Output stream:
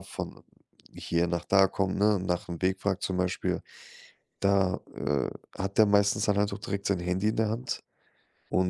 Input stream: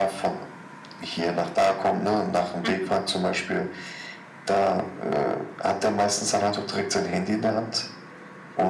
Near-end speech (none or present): present